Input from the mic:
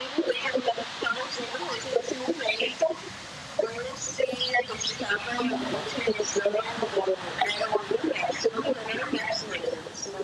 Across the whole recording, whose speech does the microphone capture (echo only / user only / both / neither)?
both